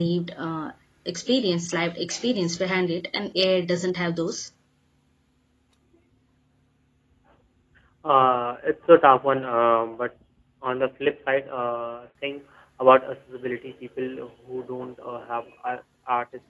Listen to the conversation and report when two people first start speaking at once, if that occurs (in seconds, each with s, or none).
none